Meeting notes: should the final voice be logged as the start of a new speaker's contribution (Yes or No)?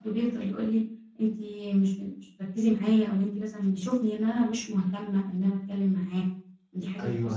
Yes